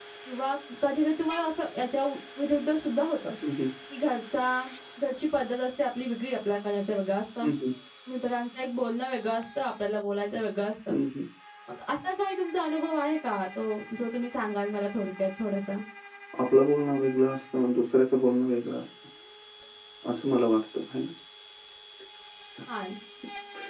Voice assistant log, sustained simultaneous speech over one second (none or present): none